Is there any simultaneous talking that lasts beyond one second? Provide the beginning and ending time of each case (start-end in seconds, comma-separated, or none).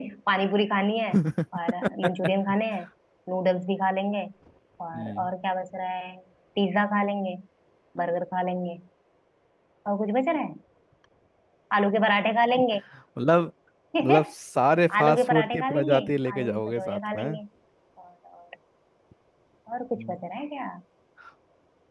15.0-17.4